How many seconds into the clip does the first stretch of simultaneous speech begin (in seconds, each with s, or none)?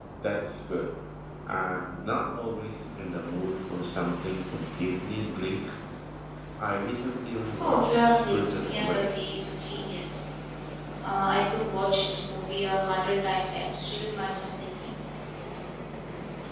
7.5 s